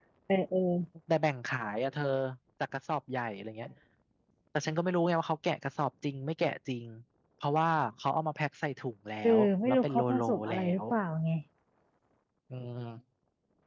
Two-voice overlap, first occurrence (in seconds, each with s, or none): 9.2 s